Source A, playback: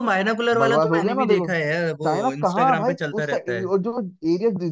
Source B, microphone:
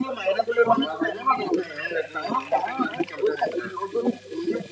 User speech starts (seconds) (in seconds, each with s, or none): none